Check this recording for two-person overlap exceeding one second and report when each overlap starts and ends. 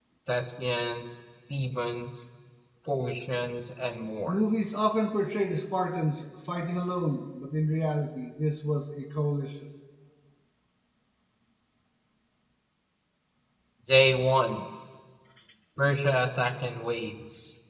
none

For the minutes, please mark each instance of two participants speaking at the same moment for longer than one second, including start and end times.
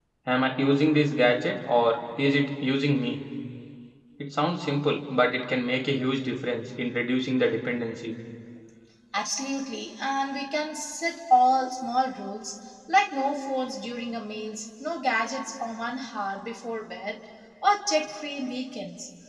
none

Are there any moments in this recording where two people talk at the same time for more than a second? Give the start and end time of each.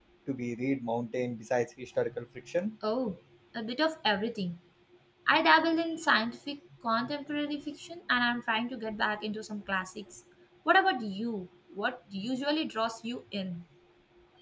none

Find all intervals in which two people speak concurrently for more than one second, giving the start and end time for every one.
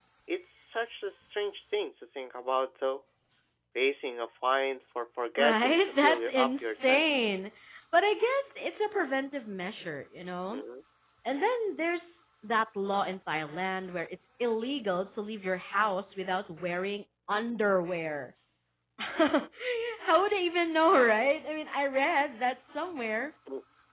5.4-7.0

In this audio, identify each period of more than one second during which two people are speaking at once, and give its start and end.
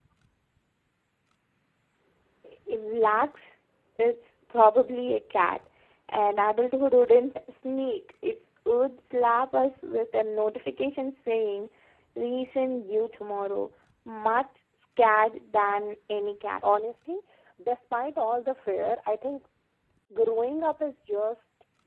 none

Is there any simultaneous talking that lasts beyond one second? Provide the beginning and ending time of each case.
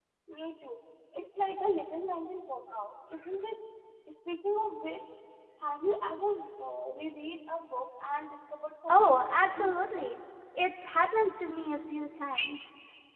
8.9-10.1

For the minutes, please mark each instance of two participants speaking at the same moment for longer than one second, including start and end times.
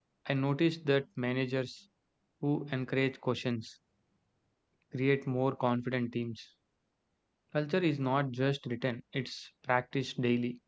none

